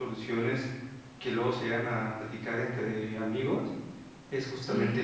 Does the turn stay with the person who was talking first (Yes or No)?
Yes